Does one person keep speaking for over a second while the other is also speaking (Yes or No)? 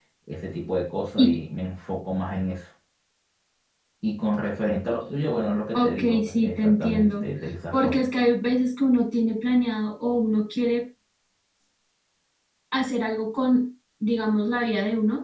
Yes